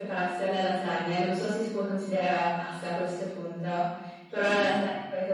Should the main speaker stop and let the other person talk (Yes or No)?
No